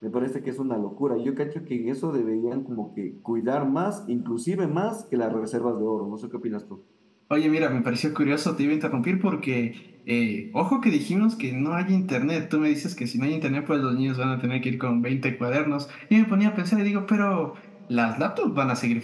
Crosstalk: none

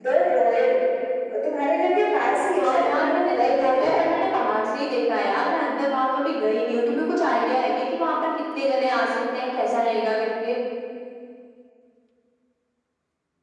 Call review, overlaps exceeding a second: present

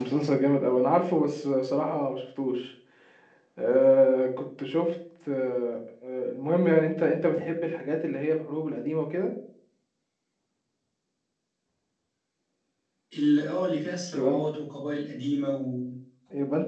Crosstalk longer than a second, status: none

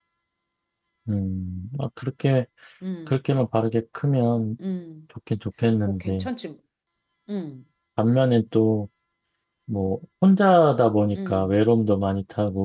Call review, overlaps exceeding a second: none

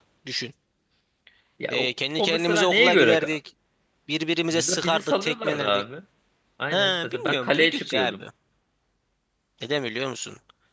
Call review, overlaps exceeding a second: present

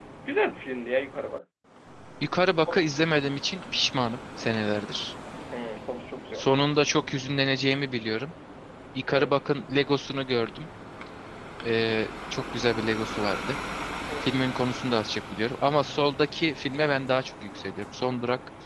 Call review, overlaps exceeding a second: none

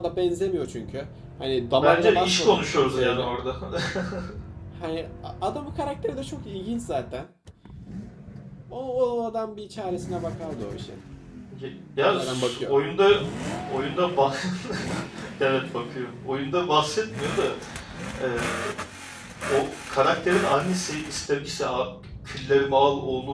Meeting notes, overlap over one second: present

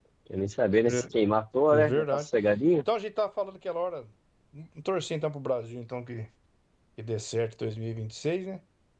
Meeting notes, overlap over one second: none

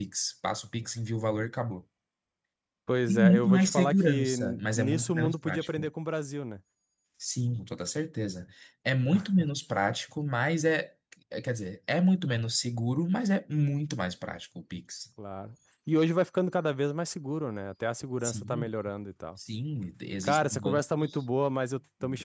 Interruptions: present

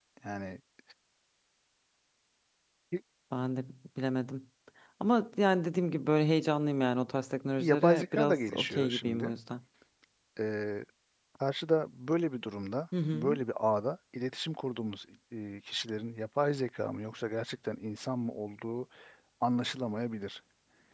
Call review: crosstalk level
present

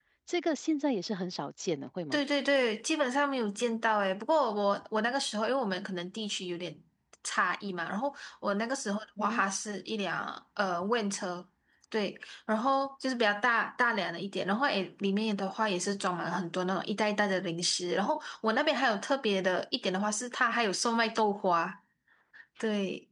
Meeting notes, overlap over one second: none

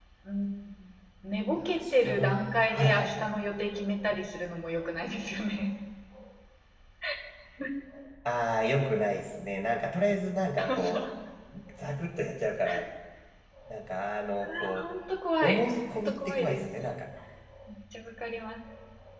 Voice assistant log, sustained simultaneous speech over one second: present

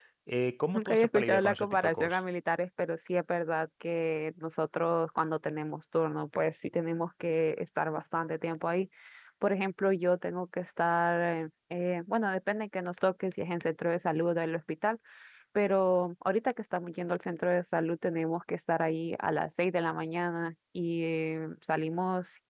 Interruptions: present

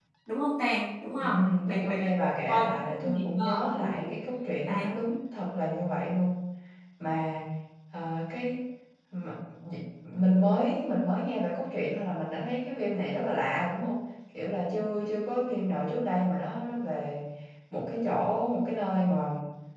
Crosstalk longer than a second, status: present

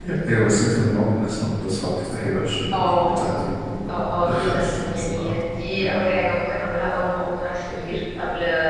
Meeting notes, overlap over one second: present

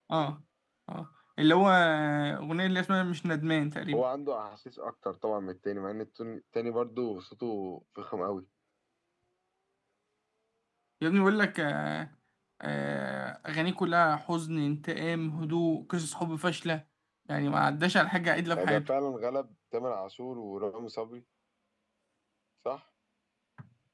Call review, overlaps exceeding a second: none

